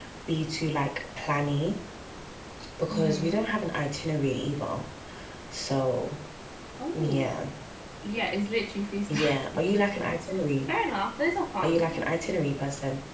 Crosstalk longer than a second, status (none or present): none